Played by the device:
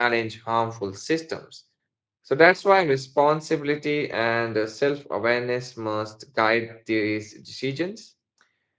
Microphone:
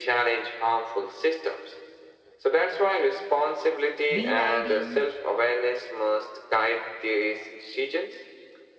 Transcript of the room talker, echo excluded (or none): rewriting